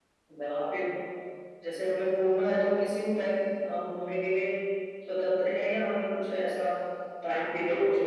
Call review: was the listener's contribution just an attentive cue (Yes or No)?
Yes